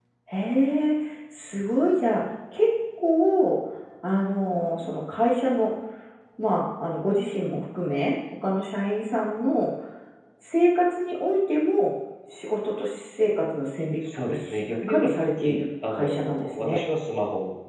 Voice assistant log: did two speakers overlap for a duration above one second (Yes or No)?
Yes